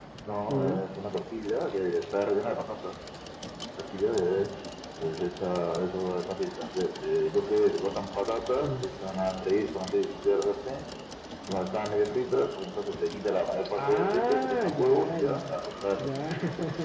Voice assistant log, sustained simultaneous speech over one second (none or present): present